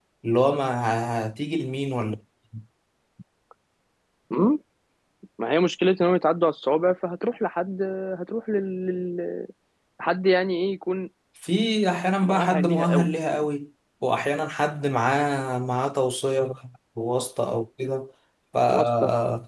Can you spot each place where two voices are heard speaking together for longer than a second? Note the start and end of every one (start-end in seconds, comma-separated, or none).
12.2-13.5